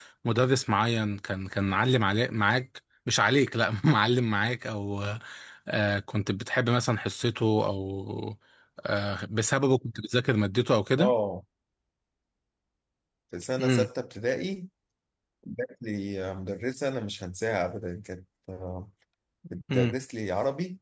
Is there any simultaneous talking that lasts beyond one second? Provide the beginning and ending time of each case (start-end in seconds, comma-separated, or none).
none